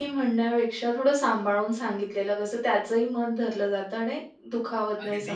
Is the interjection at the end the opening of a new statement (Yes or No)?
Yes